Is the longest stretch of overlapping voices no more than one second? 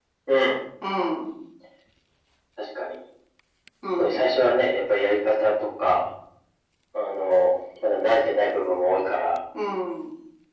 Yes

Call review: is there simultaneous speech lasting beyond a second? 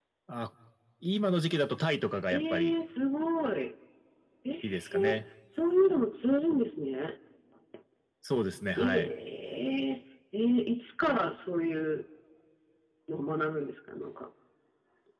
No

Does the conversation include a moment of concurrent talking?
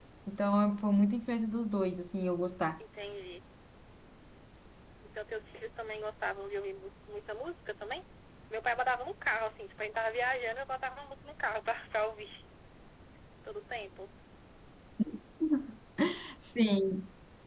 No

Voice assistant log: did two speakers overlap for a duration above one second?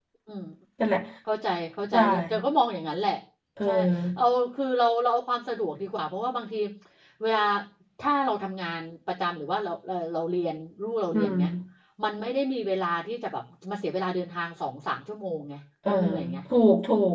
No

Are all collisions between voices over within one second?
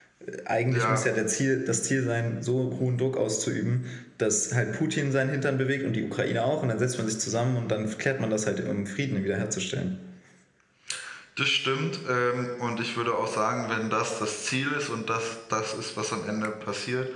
Yes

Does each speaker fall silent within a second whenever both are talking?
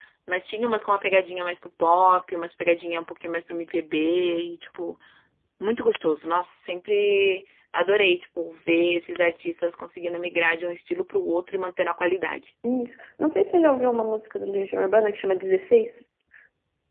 Yes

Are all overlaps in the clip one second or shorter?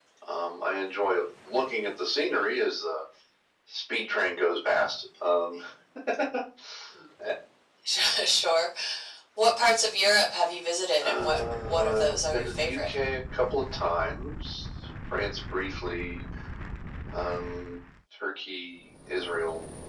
No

